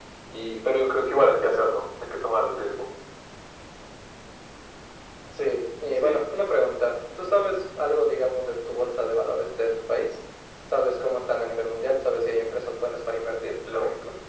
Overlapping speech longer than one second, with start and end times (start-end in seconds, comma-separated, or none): none